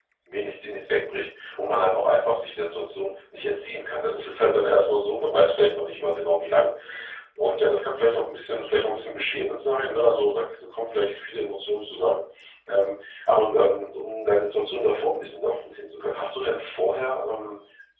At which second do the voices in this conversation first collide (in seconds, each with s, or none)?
none